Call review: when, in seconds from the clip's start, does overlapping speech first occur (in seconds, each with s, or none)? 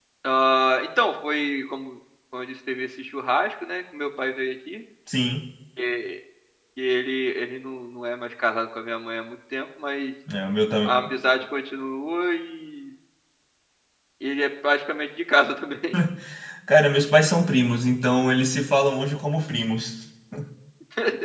none